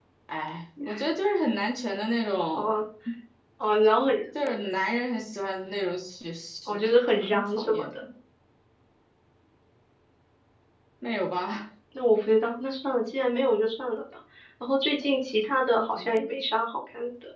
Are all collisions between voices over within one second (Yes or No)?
No